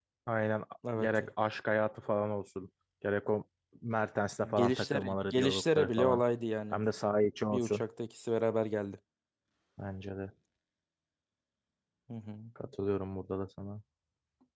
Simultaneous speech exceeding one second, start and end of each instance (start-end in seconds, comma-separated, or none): 4.5-6.2